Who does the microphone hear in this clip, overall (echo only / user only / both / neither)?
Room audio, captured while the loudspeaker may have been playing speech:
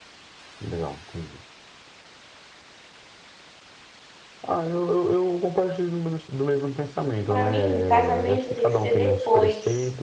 both